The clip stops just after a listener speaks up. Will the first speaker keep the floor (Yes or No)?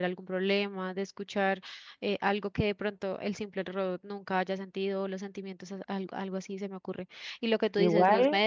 Yes